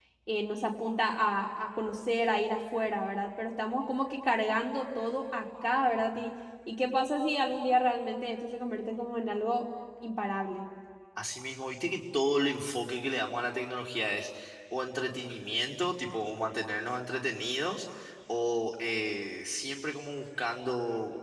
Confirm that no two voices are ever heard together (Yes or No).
Yes